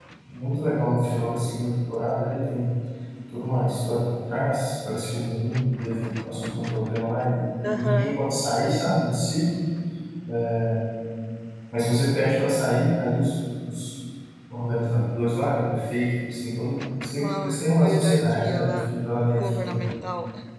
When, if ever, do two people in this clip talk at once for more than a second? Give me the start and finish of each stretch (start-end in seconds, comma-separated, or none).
7.6-8.9, 17.2-18.9